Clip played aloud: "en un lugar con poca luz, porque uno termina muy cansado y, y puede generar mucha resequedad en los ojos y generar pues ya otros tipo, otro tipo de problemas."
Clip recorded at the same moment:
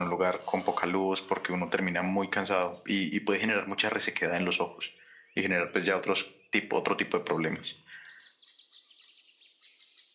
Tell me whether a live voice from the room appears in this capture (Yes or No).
No